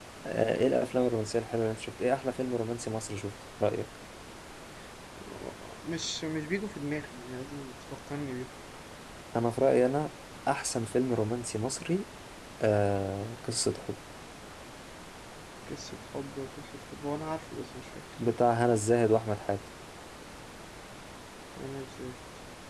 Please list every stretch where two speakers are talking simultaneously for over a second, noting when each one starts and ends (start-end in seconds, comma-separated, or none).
none